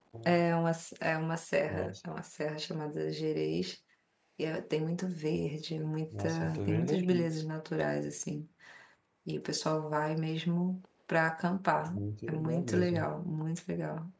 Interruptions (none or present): present